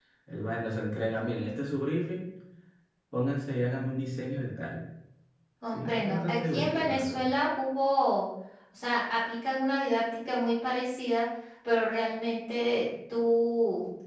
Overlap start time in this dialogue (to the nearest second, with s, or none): 6 s